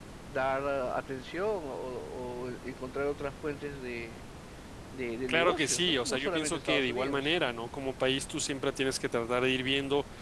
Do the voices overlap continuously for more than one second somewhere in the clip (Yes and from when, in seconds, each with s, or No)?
Yes, from 5.3 s